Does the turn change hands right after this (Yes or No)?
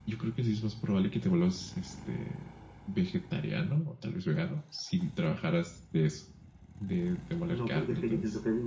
Yes